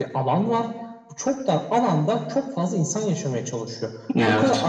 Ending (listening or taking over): listening